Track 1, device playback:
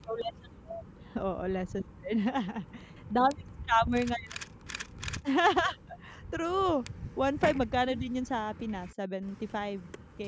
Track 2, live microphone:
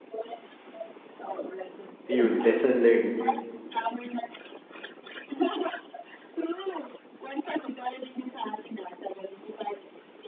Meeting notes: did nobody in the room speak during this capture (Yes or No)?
No